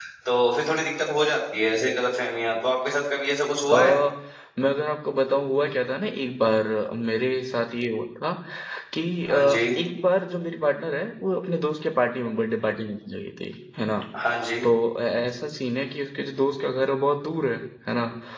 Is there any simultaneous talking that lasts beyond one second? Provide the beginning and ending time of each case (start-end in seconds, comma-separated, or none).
none